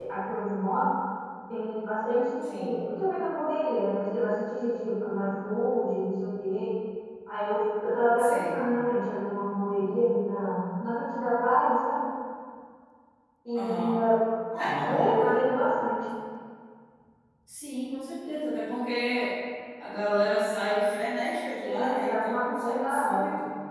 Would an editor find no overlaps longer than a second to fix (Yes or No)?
No